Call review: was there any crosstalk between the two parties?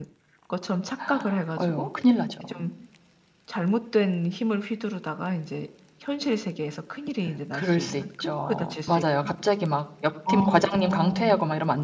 Yes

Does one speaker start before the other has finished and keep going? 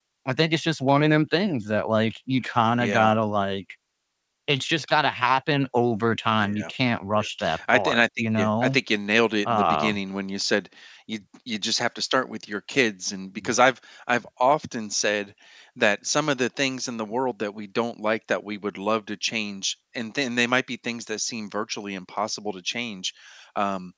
Yes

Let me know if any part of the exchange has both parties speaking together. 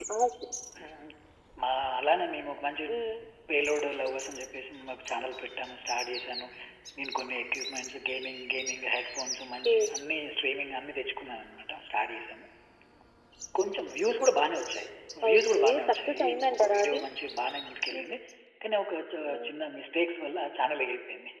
Yes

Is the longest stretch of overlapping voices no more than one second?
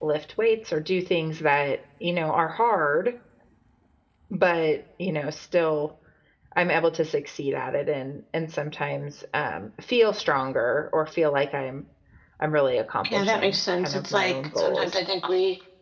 No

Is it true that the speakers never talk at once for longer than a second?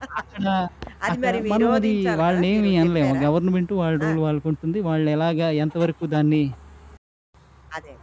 No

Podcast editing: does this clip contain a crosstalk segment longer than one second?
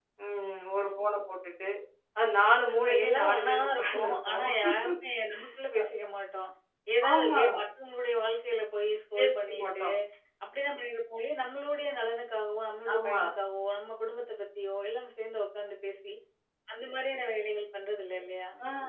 Yes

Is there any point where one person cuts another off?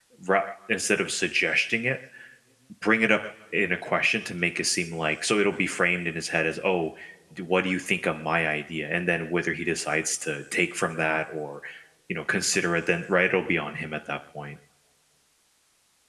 No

